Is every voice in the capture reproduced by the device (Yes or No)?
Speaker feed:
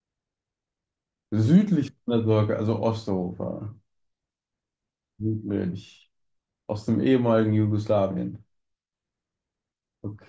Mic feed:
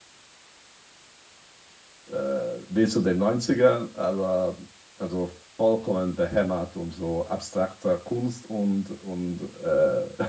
No